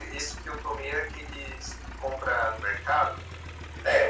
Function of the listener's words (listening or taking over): taking over